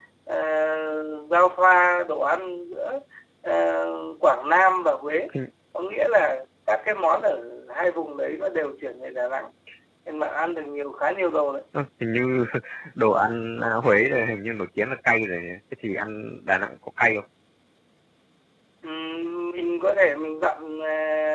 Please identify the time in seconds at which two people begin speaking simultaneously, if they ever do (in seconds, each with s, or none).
none